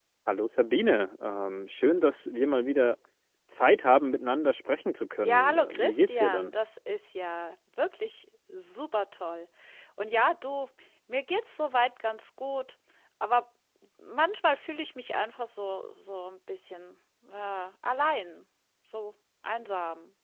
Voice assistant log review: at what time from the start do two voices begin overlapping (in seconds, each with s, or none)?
5.2 s